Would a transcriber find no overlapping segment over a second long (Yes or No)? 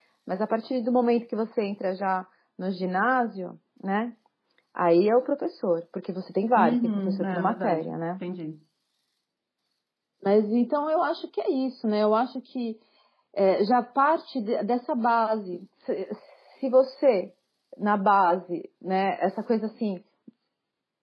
No